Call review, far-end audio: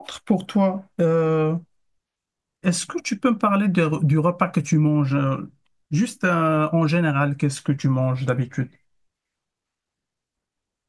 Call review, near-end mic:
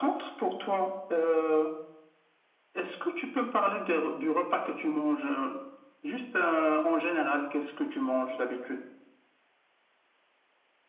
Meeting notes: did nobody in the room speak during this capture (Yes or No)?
Yes